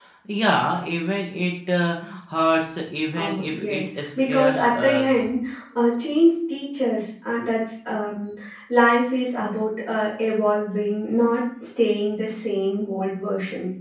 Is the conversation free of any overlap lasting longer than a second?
No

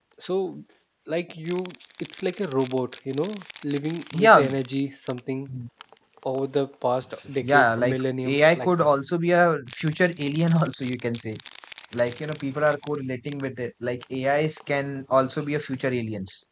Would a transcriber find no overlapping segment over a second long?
No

